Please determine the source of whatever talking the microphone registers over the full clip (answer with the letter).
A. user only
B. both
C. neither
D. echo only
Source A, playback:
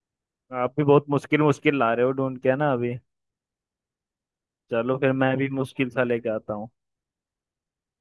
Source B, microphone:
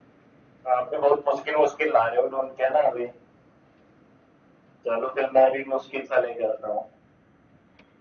D